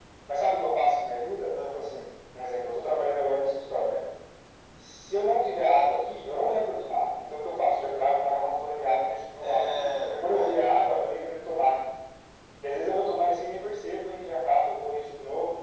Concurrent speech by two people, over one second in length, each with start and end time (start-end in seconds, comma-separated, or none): 9.4-10.7